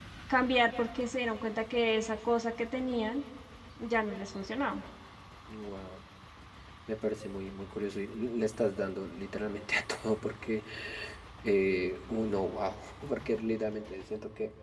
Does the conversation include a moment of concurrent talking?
No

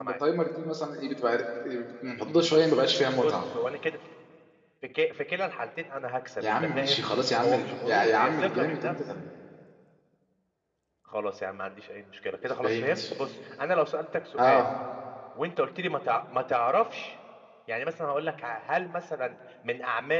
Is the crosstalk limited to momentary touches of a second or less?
No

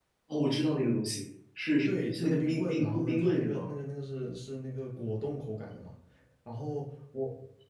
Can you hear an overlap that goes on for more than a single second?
Yes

